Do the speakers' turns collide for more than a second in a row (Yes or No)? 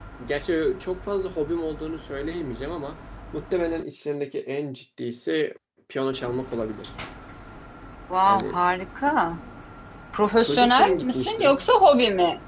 Yes